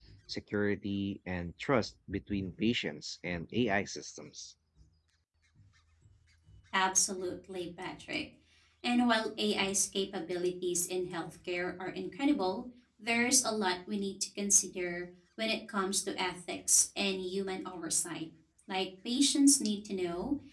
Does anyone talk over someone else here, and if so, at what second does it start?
none

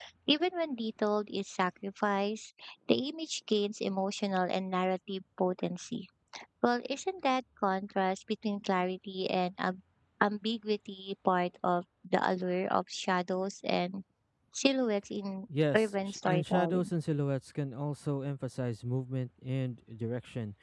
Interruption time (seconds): 15.7 s

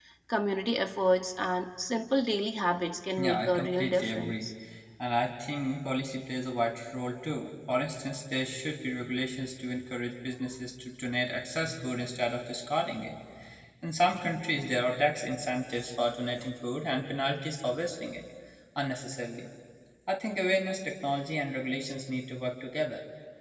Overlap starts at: 3.2 s

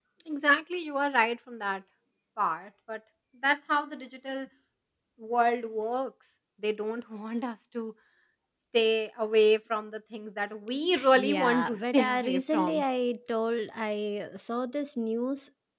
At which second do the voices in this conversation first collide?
10.9 s

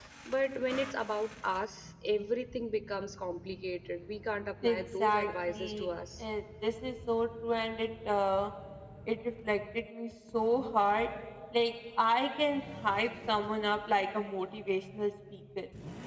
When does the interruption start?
4.6 s

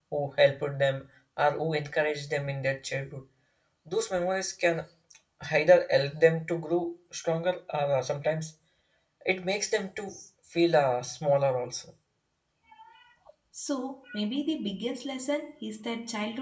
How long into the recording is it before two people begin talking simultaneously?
none

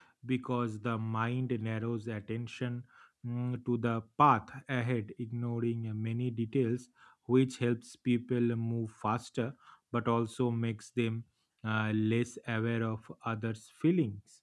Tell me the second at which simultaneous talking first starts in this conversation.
none

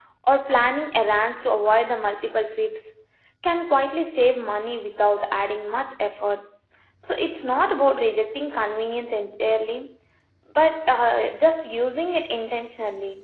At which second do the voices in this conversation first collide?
none

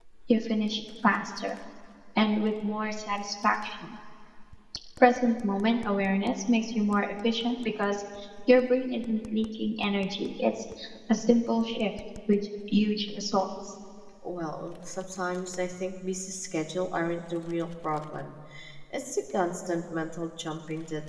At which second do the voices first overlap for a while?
none

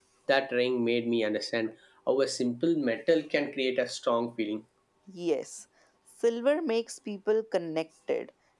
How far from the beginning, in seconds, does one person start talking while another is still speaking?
none

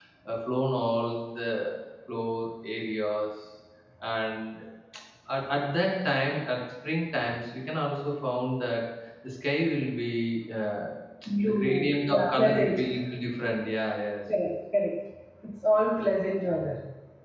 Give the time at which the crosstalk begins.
11.4 s

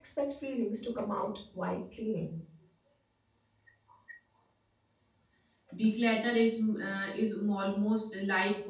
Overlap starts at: none

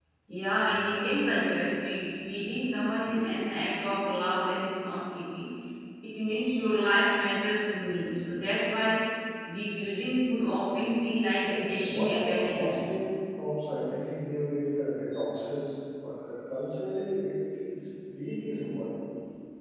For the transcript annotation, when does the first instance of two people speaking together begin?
11.4 s

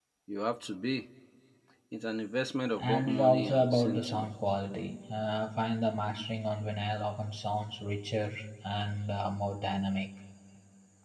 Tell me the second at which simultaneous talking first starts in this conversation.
2.8 s

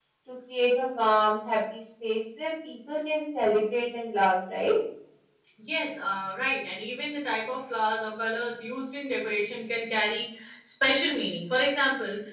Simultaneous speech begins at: none

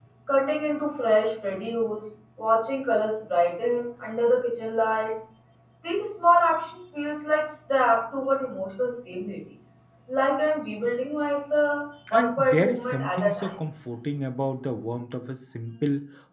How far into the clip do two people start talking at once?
12.1 s

